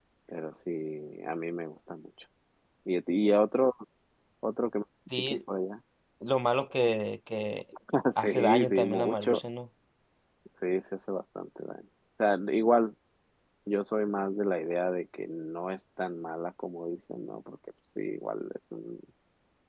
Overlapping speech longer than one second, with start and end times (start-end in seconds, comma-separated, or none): 8.2-9.4